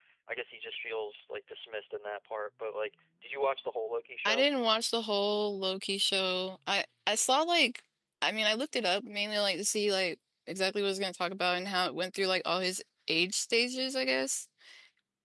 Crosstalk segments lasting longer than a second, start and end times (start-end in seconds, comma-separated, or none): none